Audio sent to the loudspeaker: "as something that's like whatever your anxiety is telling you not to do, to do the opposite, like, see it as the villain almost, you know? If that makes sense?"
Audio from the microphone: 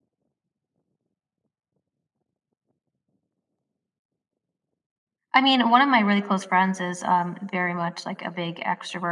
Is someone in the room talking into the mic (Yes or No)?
Yes